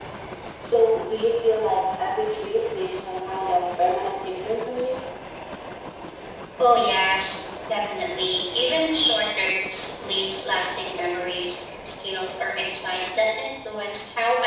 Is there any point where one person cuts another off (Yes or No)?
No